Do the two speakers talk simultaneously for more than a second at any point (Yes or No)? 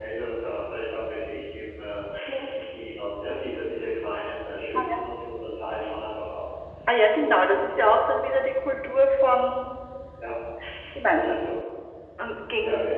No